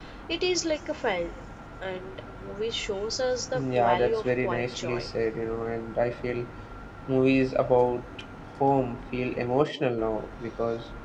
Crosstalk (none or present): present